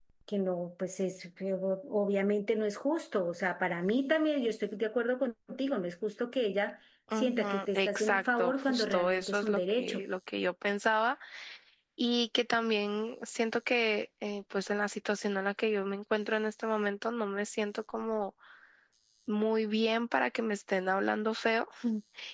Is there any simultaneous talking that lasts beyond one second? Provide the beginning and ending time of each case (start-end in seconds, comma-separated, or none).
7.2-10.0